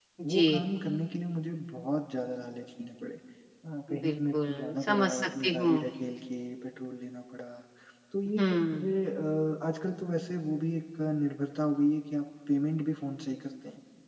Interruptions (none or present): present